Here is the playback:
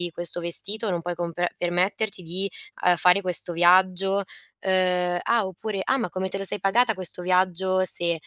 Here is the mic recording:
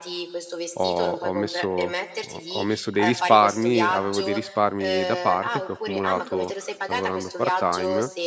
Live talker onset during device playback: 1 s

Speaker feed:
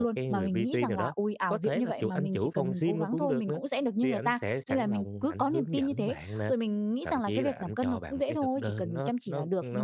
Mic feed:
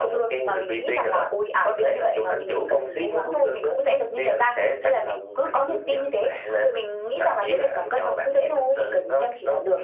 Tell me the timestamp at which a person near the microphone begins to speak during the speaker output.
none

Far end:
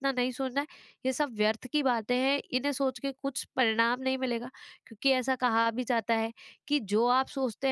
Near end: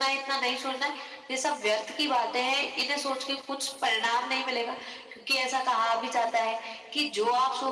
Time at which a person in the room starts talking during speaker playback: none

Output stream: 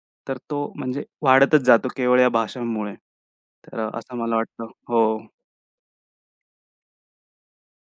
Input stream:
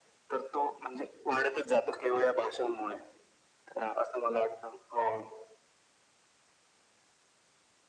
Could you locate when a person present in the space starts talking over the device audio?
none

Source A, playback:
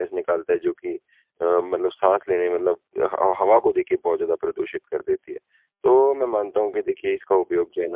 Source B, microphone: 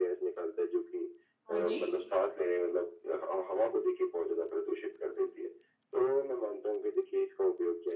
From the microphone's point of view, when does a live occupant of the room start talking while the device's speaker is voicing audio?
2 s

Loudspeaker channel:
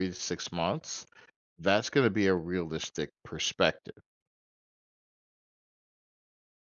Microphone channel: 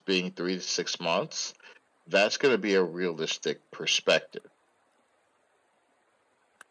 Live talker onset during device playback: none

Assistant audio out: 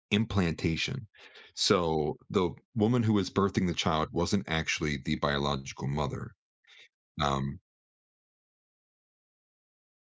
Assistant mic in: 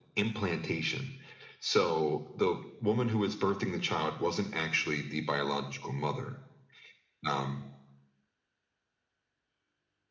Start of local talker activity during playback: none

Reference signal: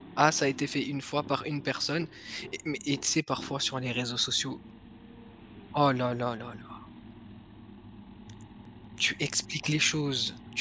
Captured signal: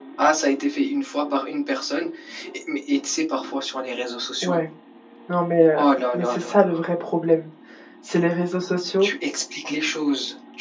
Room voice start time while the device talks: 4 s

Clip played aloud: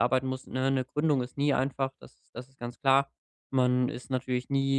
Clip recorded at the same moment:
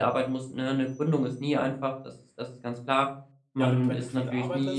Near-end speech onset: 4 s

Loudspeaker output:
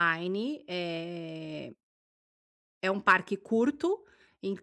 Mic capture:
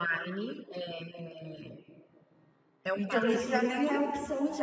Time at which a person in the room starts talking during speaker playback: 3 s

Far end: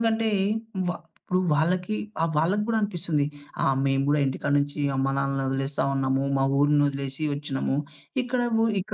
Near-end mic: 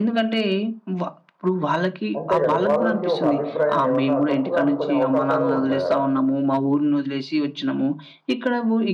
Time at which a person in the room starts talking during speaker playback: 2 s

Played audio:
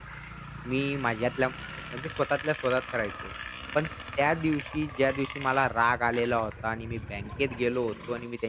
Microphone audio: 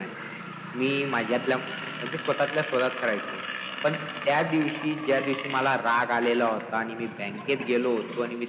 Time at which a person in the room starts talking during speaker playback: none

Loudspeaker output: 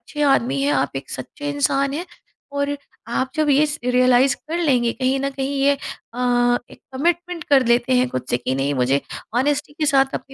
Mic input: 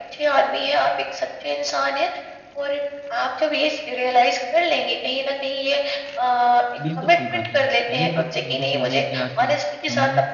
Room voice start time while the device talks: 7 s

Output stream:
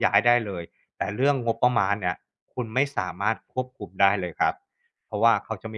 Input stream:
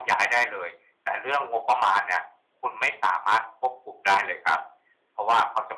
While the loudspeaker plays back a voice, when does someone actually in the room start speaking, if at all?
none

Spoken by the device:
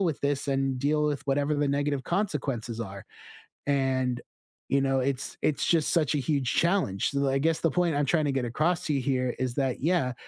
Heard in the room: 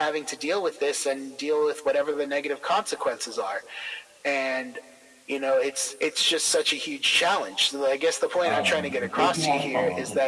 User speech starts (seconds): 8 s

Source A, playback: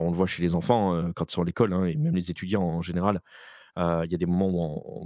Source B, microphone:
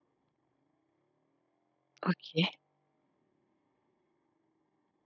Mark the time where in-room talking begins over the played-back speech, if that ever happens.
2 s

